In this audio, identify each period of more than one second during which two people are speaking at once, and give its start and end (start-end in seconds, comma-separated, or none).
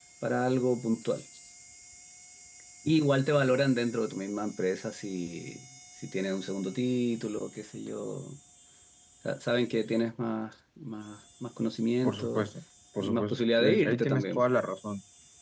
13.0-14.4